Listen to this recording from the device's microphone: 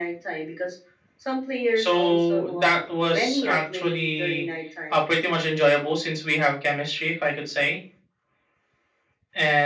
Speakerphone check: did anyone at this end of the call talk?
No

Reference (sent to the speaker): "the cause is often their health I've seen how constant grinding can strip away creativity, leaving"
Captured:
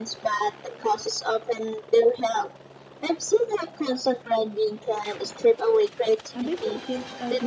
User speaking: Yes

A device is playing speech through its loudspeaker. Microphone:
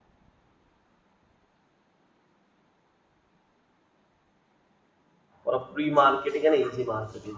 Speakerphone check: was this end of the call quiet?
No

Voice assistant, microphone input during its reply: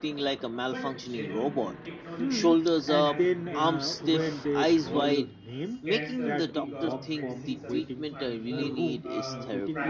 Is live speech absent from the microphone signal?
No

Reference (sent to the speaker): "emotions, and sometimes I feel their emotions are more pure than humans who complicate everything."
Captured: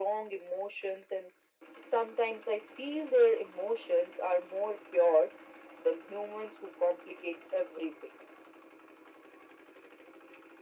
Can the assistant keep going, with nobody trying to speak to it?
Yes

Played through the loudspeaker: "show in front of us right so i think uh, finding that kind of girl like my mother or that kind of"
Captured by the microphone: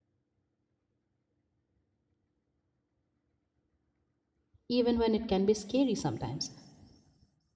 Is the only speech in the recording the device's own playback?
No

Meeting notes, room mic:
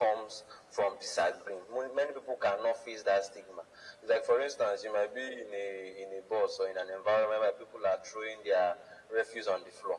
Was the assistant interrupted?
No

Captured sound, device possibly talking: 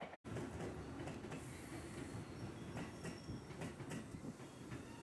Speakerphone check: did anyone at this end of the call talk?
No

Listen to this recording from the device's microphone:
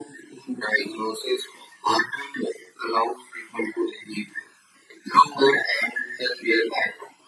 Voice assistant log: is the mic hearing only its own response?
Yes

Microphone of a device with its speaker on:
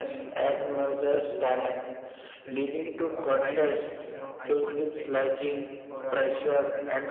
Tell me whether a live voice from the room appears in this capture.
Yes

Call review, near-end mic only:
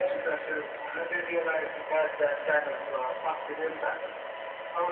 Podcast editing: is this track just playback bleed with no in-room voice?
Yes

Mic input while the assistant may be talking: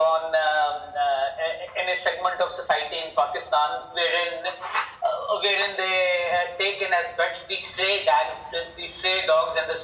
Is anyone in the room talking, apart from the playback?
No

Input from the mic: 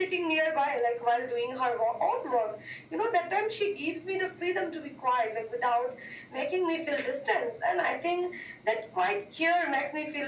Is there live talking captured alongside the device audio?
No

